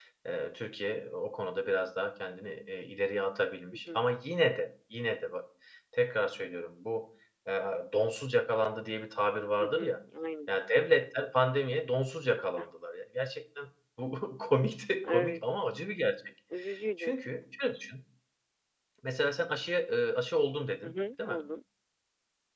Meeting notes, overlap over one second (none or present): none